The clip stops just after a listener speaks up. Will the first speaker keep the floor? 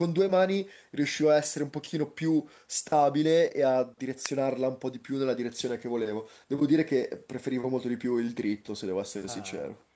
No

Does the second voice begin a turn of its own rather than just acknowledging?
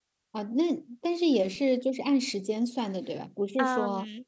Yes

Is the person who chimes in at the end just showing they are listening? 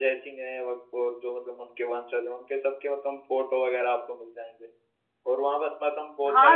No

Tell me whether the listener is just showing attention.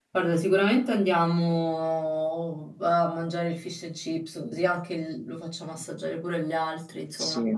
No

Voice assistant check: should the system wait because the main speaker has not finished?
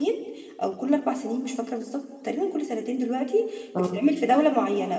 Yes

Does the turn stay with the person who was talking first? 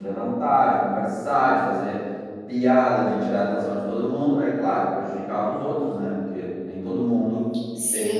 No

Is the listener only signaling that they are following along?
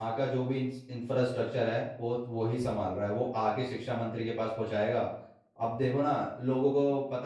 No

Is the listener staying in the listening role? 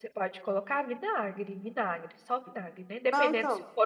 Yes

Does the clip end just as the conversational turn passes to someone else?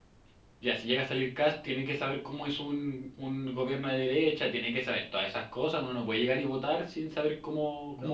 Yes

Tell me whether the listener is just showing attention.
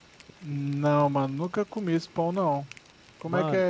No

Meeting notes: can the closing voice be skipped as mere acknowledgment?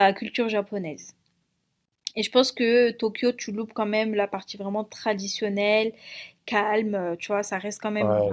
No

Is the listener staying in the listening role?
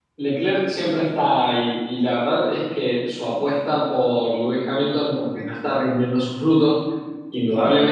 Yes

